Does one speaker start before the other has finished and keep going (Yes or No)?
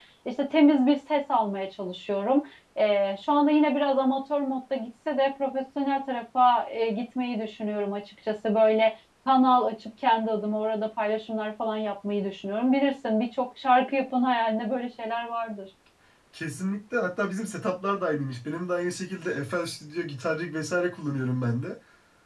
No